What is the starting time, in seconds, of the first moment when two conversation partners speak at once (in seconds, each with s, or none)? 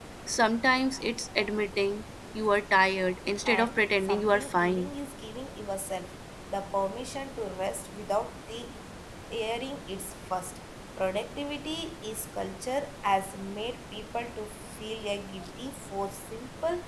3.5 s